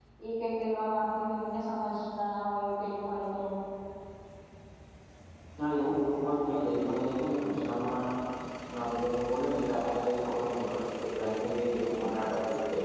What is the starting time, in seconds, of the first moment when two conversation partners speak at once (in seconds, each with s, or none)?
none